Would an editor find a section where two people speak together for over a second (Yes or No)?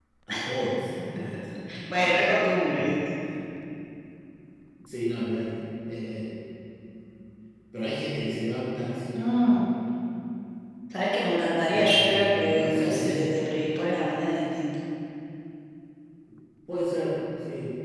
Yes